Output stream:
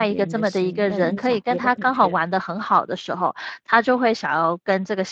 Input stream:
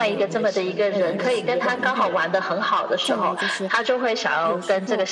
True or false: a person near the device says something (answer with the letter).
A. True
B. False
A